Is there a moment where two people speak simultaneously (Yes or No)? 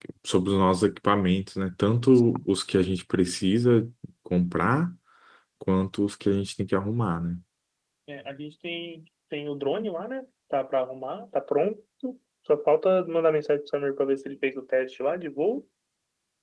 No